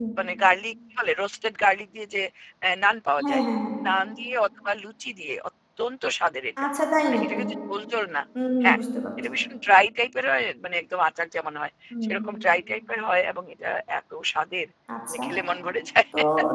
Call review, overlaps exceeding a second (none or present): none